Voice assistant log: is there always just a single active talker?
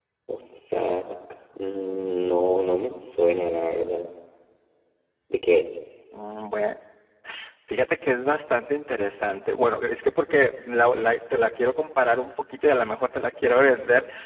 Yes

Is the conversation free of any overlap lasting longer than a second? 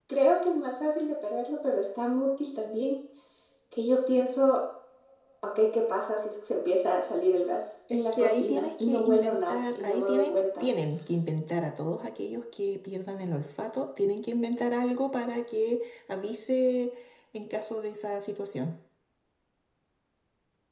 No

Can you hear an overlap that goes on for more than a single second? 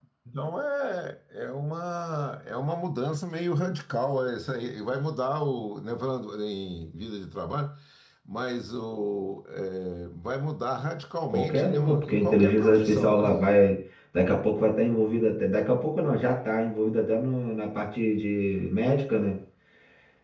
Yes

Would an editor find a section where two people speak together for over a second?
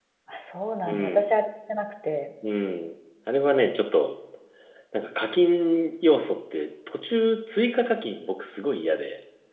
No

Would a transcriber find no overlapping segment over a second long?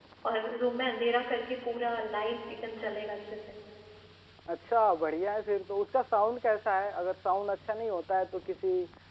Yes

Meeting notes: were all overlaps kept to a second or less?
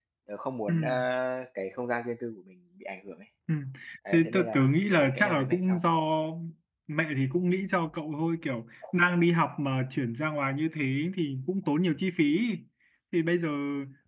No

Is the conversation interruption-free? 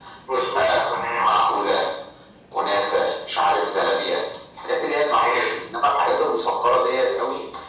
No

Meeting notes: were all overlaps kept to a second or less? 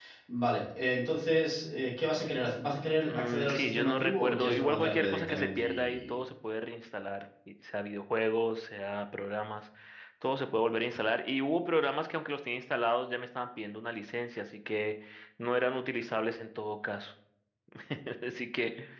No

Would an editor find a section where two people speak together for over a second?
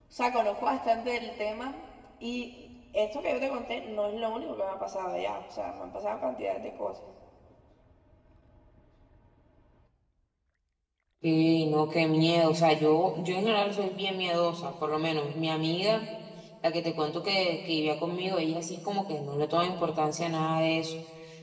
No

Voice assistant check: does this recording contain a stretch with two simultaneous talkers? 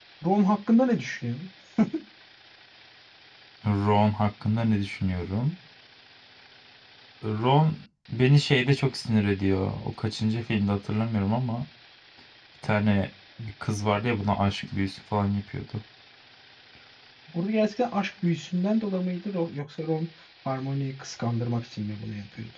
No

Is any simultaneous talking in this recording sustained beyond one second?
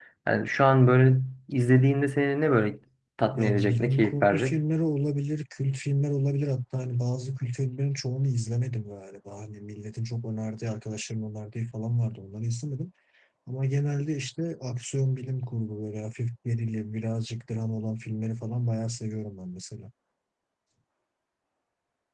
Yes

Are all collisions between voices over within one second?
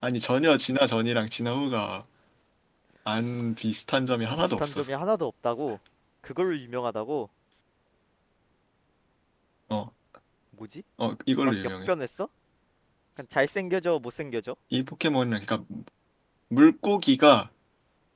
Yes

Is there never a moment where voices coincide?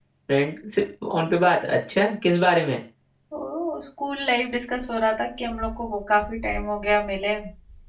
Yes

